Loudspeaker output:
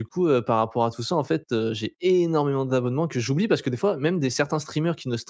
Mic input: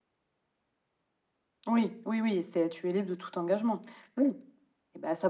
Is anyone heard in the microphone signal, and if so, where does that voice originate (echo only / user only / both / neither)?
user only